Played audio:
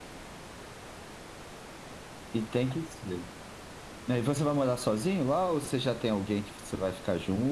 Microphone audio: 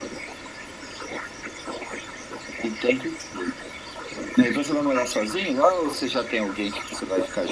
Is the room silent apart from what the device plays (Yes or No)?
Yes